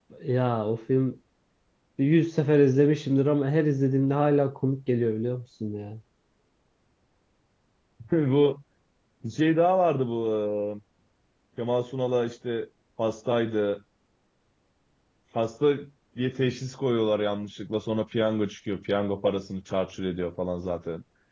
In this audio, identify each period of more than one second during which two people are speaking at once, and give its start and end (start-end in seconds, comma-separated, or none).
none